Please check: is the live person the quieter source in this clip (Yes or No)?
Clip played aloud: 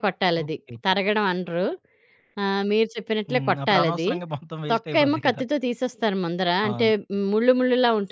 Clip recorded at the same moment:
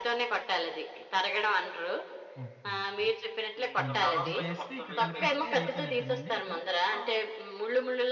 Yes